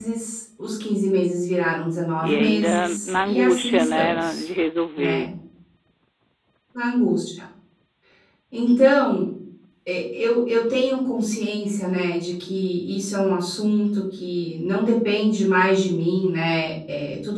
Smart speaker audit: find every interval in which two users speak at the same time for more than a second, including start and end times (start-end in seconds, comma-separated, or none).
2.2-4.5